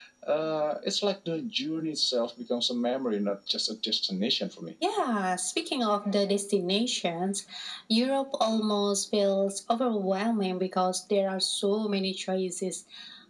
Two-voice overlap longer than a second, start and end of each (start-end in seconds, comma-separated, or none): none